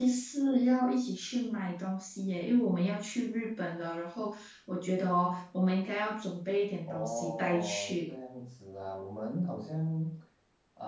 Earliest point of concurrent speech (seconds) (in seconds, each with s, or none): 6.9 s